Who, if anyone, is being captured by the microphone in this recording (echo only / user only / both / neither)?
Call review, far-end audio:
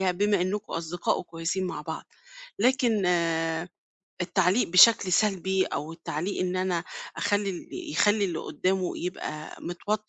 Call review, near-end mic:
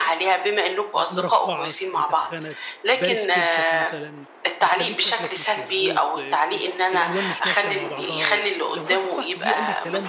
both